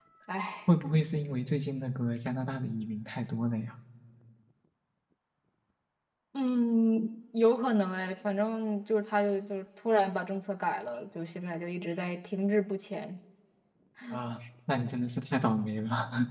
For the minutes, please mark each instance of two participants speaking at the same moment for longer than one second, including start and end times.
none

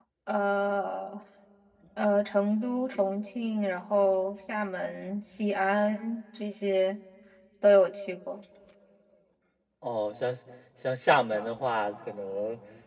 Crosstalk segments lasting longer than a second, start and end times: none

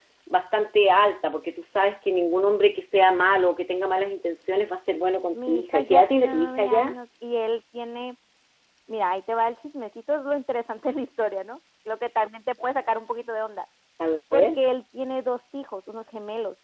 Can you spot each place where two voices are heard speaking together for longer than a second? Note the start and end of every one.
5.3-6.9

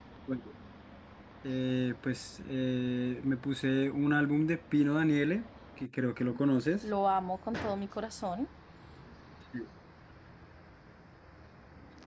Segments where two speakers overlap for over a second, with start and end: none

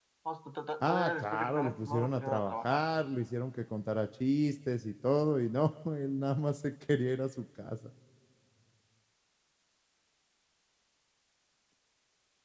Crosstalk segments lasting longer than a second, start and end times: 0.8-2.8

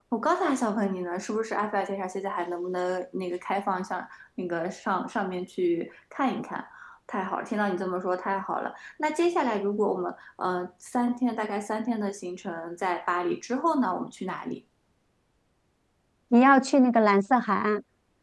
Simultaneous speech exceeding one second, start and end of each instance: none

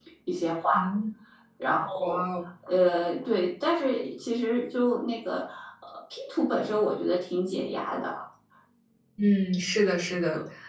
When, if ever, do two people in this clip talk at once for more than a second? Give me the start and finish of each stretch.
none

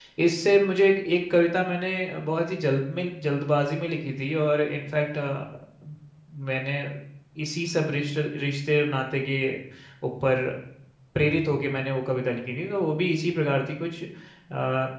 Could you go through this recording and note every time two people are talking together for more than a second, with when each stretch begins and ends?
none

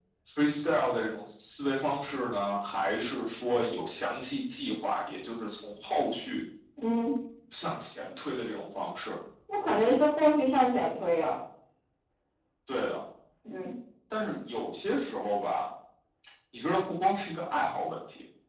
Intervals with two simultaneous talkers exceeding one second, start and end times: none

